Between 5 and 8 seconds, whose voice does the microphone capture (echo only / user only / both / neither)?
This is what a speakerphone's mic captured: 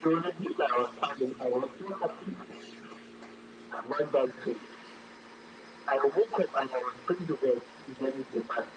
echo only